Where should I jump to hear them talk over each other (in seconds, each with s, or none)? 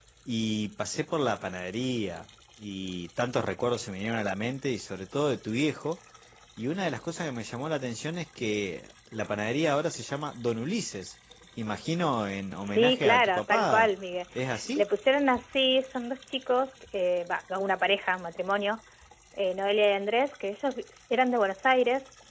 12.6 s